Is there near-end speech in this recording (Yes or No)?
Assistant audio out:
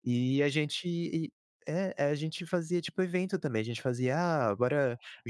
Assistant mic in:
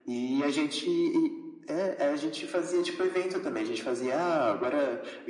No